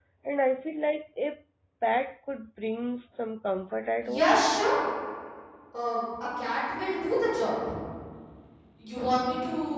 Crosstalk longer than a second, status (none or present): none